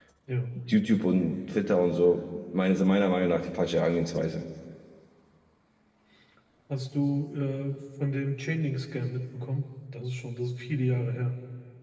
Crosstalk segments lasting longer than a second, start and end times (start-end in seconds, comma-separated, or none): none